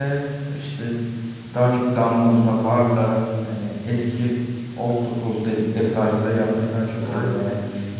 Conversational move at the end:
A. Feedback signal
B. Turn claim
A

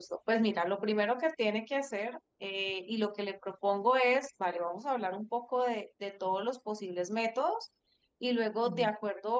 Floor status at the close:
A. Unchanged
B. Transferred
A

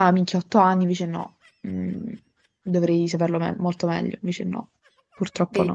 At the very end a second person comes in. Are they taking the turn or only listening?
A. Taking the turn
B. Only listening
A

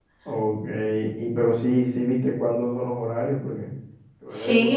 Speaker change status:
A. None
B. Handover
B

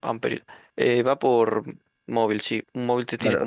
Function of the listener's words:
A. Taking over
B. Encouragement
A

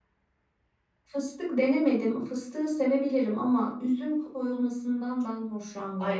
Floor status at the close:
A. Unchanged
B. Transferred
B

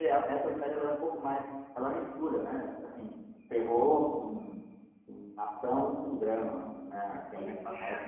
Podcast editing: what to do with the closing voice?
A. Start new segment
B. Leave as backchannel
A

